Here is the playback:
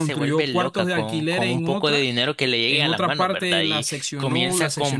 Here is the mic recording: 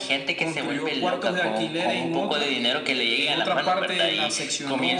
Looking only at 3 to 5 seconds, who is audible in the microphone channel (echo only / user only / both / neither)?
echo only